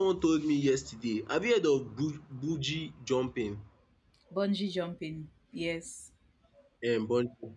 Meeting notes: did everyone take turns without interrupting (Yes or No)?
Yes